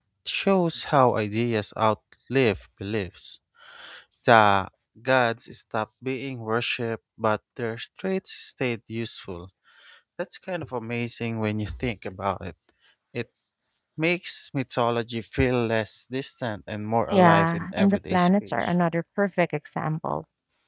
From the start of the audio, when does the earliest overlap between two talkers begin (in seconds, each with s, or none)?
17.1 s